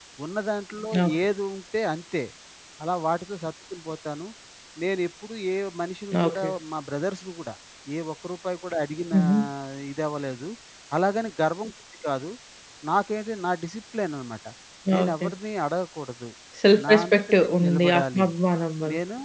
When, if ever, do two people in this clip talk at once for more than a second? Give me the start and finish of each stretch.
16.8-18.3

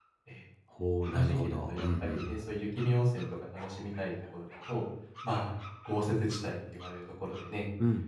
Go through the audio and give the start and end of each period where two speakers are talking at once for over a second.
1.1-2.3

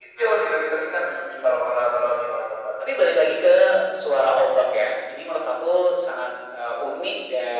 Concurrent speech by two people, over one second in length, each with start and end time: none

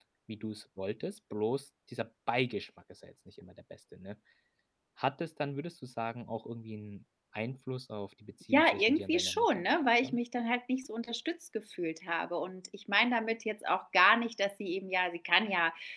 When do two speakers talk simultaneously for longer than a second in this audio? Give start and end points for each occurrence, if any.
8.5-10.2

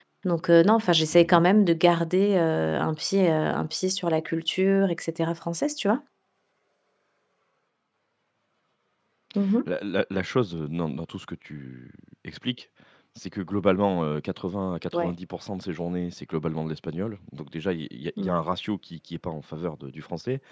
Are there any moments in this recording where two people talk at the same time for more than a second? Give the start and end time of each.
none

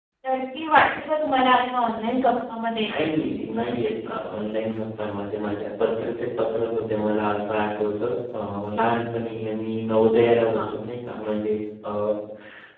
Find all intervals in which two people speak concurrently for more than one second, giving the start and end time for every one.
none

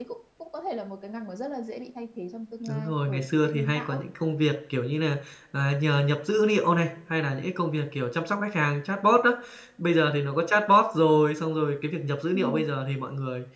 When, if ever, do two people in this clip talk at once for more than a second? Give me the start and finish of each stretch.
2.7-4.0

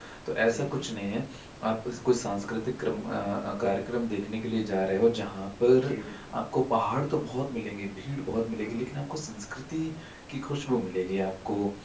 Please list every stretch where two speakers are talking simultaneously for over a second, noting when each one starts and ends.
none

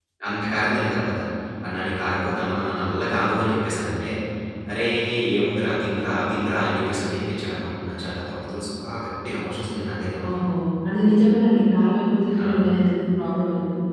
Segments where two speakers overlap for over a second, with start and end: none

